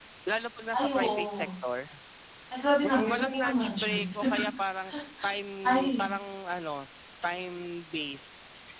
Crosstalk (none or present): present